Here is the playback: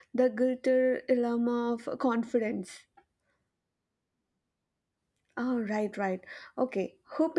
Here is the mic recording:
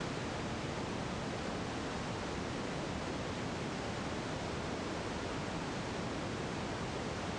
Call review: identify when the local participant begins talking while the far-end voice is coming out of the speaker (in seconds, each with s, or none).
none